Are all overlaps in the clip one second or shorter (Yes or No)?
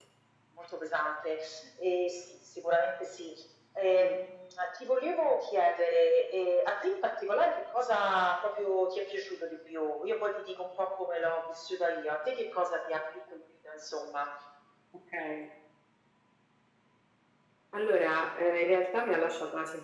Yes